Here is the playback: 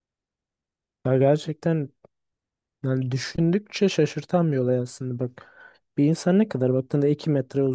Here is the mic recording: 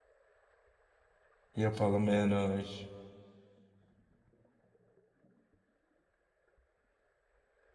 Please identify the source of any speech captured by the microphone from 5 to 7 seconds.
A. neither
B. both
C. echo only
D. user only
A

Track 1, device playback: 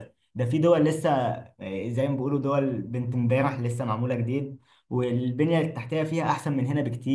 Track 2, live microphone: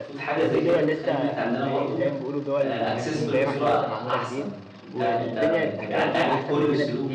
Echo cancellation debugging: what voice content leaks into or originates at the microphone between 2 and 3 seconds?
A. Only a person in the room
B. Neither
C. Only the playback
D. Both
D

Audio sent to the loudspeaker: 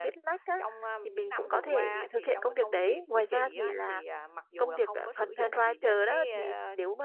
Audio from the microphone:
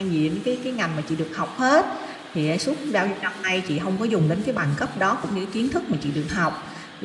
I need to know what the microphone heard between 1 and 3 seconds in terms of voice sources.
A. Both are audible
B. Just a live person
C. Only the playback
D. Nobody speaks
B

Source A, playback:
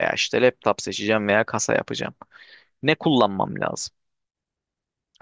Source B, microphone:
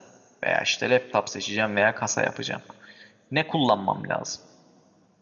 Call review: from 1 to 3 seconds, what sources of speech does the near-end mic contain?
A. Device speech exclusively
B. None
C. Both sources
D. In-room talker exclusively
A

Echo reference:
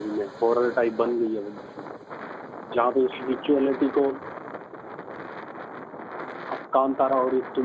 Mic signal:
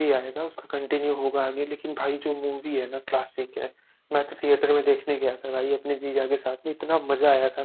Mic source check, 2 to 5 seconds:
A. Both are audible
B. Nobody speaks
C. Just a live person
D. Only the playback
C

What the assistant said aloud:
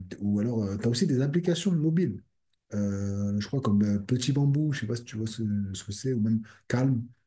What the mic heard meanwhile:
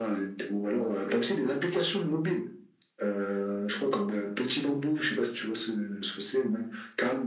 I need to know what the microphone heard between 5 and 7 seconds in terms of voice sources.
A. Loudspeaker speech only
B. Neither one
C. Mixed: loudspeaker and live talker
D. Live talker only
A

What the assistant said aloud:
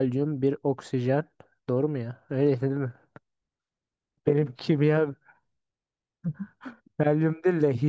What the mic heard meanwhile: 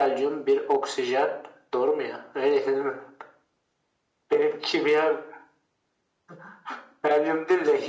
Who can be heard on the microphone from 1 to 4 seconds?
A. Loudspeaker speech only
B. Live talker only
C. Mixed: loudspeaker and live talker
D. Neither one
A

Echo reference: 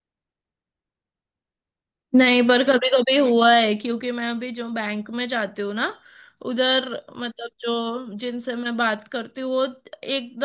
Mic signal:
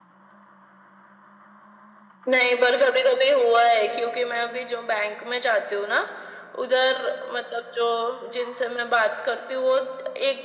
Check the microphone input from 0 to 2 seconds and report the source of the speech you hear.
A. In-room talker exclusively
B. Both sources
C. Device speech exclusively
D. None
D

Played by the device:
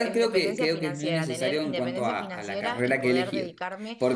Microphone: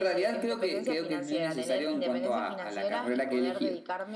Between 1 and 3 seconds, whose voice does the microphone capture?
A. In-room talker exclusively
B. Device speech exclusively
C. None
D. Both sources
B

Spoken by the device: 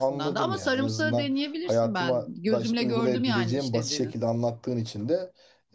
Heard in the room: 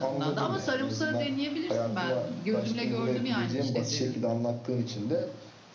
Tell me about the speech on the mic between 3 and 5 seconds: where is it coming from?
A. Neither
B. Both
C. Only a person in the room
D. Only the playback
D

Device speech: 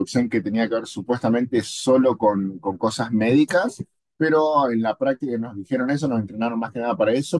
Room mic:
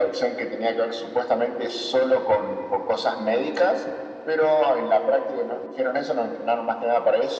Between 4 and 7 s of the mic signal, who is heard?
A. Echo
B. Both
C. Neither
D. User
A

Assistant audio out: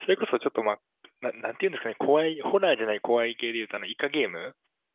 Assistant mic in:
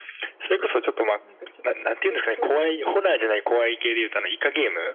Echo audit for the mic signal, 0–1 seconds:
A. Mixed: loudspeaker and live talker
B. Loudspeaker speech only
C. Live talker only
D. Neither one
B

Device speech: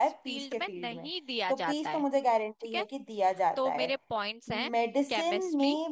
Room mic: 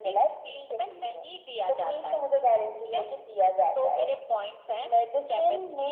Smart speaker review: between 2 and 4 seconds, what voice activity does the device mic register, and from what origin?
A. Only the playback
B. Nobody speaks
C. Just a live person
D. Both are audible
A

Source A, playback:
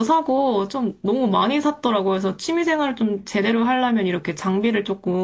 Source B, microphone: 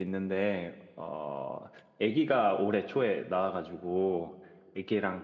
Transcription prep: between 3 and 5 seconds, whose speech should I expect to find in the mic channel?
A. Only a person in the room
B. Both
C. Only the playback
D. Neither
A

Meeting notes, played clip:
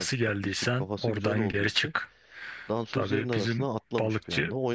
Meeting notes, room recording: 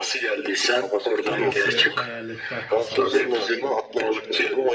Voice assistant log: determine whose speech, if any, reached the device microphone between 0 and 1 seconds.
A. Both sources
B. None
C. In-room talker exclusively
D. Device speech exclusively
D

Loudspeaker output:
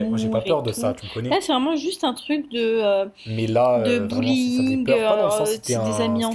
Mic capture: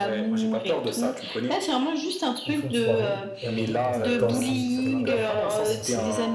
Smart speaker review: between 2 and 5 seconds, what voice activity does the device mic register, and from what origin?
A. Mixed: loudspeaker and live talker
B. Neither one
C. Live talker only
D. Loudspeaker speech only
A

